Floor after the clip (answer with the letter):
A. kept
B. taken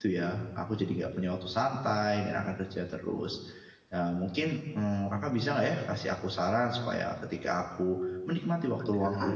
A